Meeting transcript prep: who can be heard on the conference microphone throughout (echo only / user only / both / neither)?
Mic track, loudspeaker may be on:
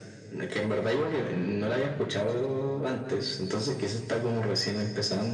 echo only